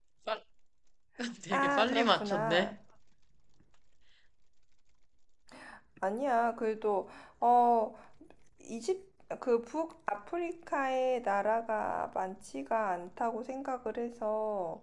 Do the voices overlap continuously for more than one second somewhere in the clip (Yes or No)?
Yes